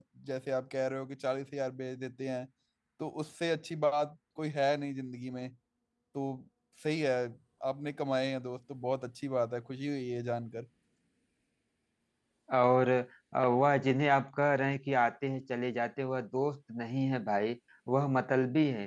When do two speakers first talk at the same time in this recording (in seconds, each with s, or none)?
none